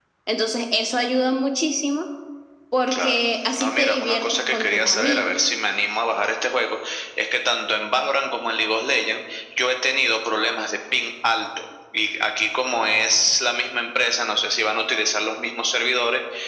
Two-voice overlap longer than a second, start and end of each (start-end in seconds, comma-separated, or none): 3.6-5.5